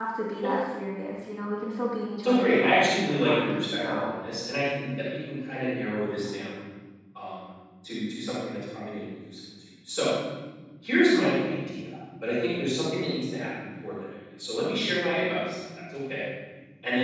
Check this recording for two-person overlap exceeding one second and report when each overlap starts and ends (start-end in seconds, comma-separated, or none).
2.2-4.1